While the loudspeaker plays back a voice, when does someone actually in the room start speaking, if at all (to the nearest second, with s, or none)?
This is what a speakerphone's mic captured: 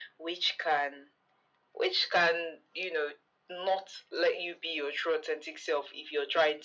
none